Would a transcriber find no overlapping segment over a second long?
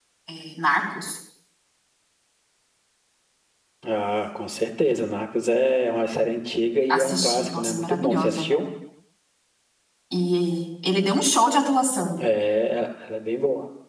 No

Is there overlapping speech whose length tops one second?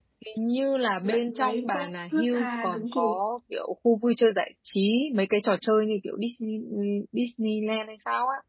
Yes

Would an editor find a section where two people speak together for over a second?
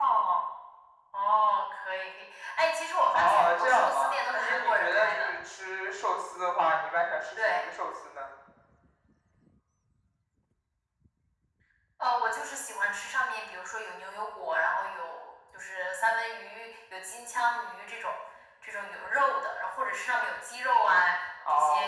Yes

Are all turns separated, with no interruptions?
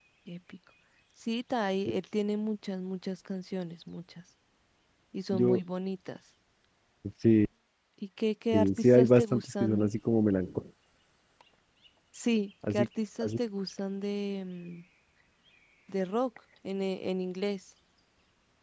No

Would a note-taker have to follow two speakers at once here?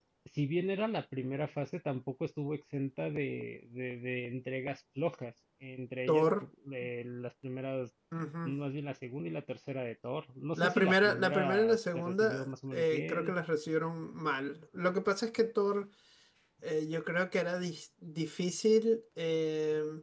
Yes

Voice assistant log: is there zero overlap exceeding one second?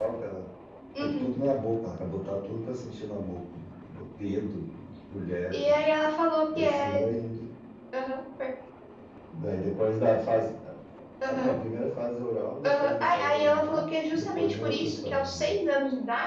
No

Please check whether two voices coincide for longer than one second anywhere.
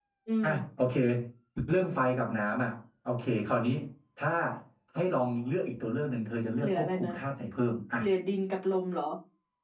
No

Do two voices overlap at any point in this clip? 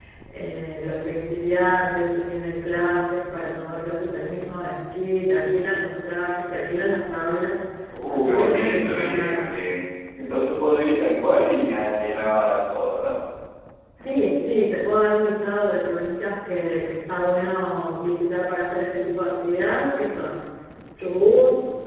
Yes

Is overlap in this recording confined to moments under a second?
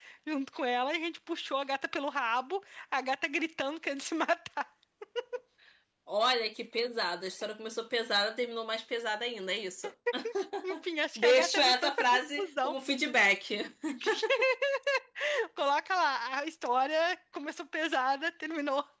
No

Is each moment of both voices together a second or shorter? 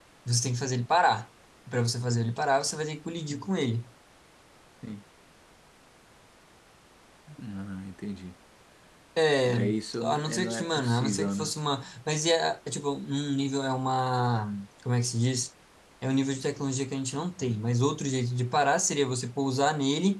No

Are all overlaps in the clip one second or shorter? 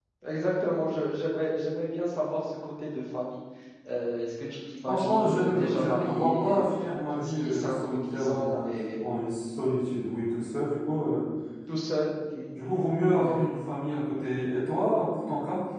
No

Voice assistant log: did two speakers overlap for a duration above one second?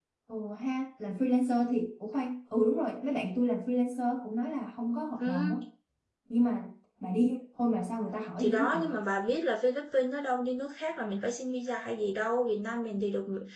No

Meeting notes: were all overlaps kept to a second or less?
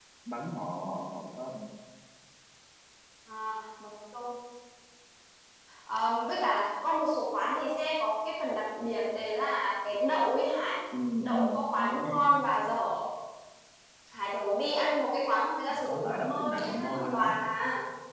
No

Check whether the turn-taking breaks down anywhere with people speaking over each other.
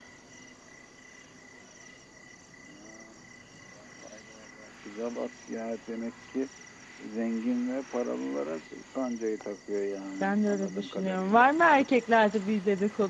Yes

